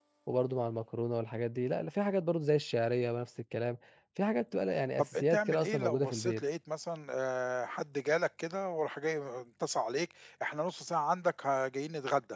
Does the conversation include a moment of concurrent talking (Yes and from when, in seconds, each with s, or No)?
Yes, from 5.0 s